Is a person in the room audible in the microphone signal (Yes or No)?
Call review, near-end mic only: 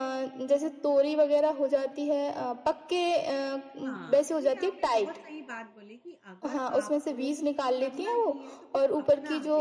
Yes